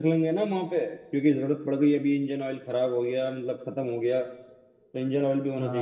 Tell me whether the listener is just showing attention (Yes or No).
No